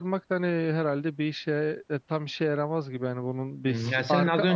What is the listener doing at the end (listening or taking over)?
taking over